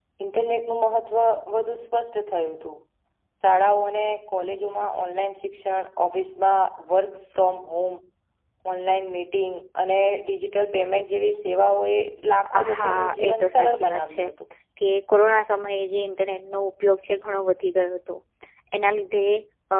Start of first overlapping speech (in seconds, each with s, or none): 12.5 s